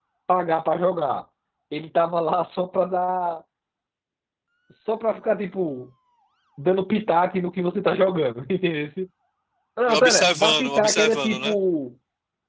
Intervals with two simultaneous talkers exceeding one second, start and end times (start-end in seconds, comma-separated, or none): 9.8-11.5